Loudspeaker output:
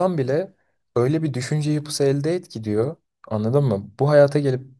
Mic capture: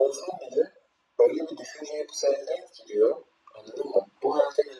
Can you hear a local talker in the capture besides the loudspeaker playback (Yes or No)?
No